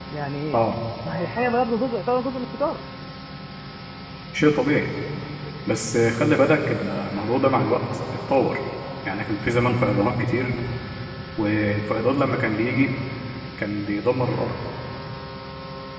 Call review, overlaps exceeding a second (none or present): none